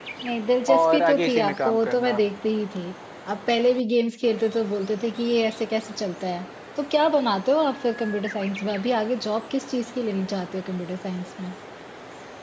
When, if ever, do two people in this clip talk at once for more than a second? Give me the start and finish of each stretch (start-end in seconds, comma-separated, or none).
0.7-2.2